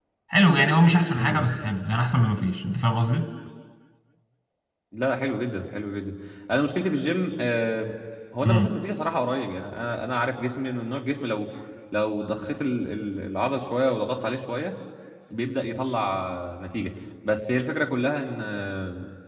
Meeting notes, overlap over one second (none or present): none